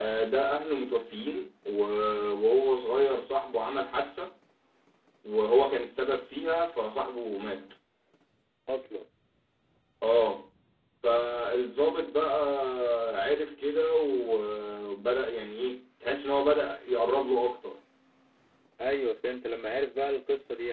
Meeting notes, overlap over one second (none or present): none